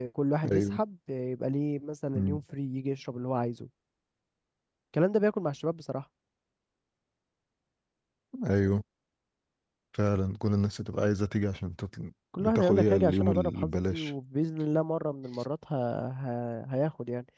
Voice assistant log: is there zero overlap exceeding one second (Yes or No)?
No